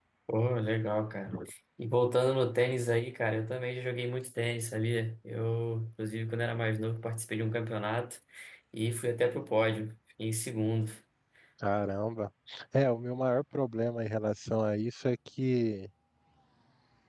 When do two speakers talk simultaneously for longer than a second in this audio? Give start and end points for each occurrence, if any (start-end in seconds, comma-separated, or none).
none